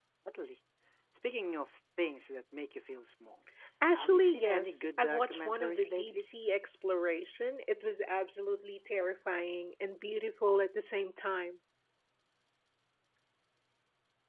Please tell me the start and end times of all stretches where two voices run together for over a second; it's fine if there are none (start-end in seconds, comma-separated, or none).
3.9-6.2